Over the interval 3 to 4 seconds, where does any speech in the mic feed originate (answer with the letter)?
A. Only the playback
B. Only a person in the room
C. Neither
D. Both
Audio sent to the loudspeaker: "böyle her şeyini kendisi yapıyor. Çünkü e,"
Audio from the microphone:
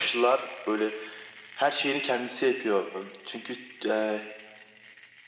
A